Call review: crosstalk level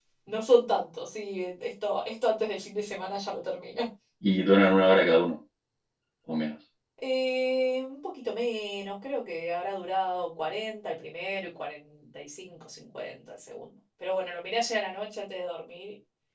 none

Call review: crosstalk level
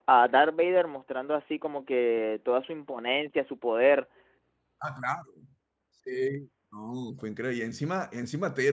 none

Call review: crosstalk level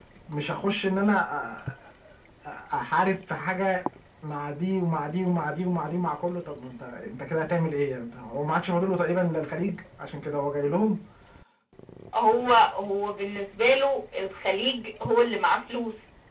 none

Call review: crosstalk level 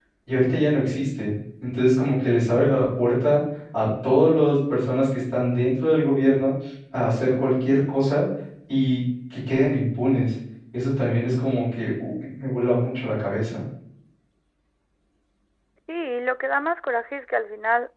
none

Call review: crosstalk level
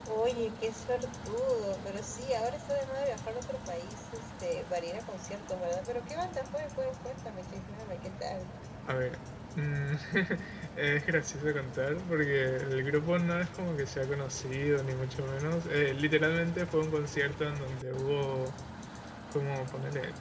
none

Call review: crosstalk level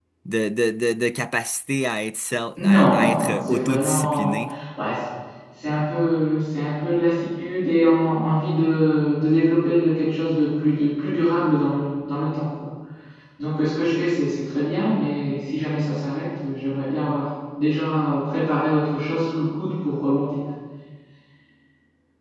present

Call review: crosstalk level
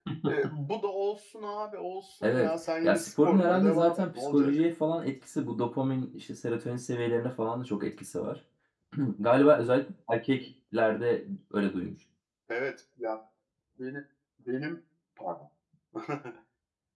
present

